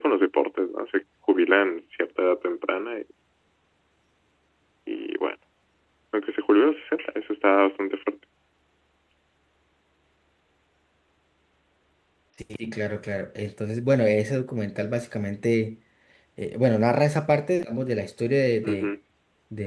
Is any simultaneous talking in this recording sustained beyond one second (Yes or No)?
No